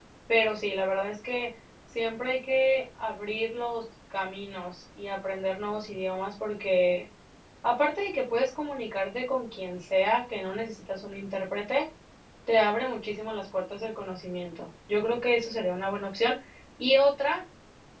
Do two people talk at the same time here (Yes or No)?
No